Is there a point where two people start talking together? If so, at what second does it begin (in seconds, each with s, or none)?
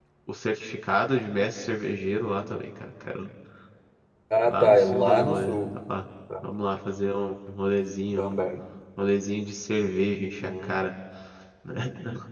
4.5 s